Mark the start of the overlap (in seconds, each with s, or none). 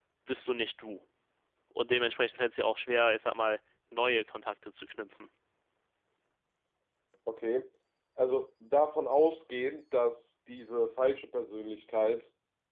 none